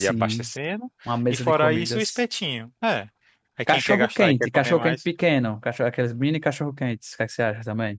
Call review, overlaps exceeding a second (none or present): present